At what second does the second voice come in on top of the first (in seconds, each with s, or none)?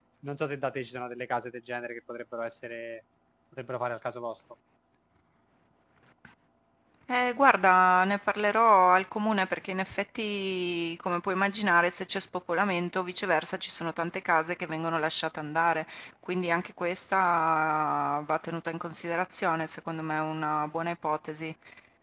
none